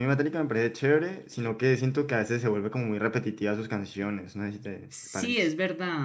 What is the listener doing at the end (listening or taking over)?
taking over